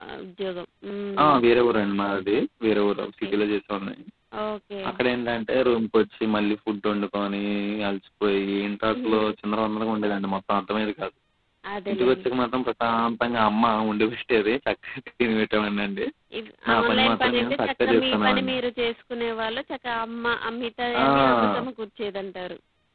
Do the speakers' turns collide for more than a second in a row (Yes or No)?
Yes